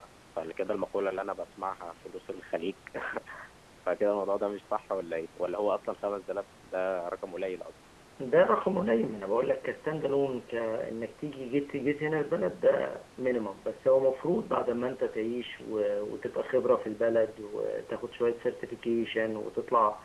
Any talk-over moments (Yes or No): No